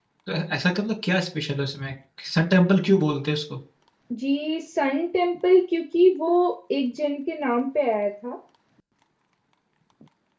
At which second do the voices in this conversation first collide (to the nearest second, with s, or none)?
none